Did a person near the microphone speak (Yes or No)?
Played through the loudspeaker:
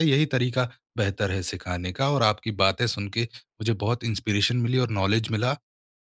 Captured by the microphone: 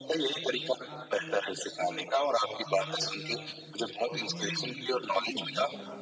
Yes